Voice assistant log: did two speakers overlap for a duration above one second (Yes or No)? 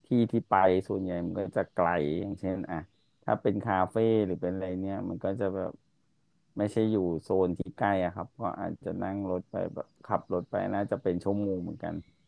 No